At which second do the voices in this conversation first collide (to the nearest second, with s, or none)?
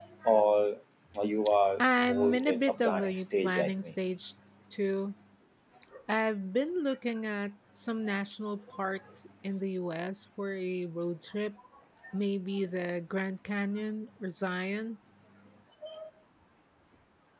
2 s